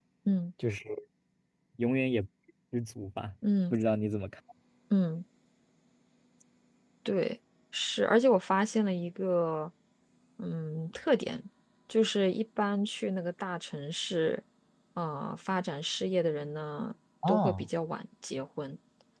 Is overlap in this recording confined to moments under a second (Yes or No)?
Yes